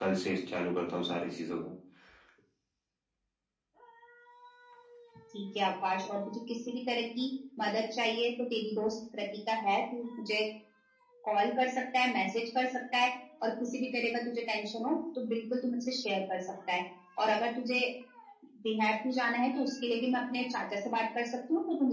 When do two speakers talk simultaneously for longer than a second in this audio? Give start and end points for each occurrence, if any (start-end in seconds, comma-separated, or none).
none